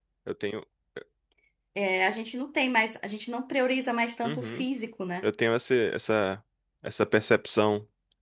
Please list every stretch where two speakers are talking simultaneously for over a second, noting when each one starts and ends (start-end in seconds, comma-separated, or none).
none